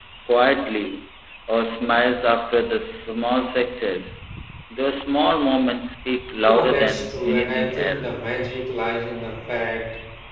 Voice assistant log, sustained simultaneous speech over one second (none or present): present